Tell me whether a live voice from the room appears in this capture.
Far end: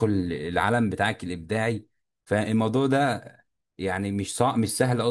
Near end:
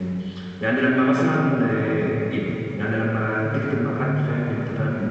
Yes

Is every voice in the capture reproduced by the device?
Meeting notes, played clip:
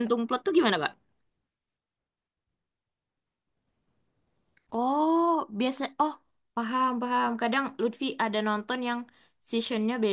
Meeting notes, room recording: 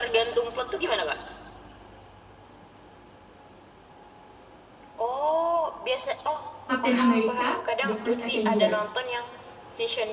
No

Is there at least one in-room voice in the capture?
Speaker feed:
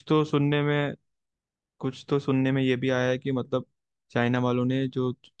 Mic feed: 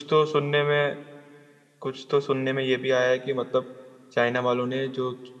No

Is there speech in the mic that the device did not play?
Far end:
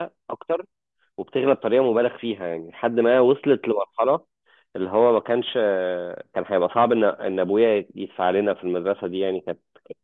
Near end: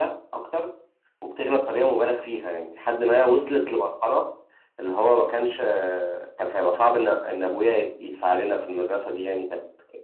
No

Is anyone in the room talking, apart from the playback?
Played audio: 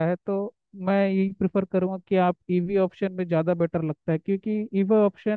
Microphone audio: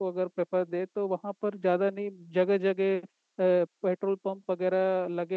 Yes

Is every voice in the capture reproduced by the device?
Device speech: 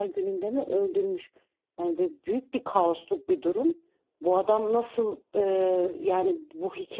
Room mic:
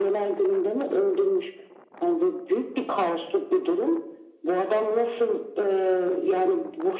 Yes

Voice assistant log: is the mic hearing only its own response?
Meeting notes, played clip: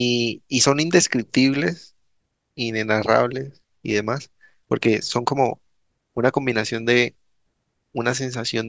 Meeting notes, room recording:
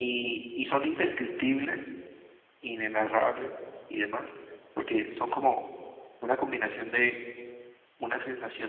Yes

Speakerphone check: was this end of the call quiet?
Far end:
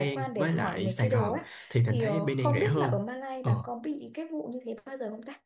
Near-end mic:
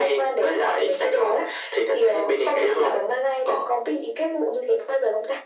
Yes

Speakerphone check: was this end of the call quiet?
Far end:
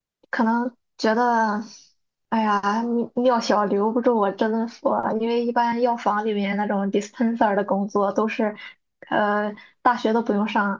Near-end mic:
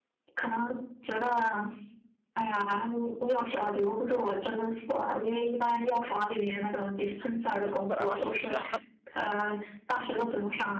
No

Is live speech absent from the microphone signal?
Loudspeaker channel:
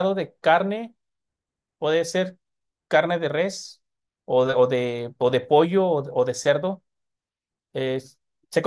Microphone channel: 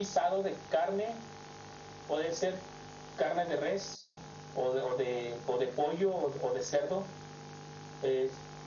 Yes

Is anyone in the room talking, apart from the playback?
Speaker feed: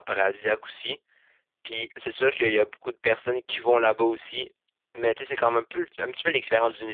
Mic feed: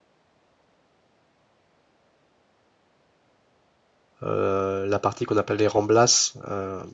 Yes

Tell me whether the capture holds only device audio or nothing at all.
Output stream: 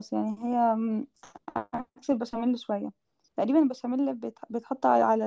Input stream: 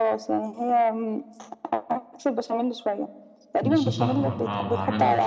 No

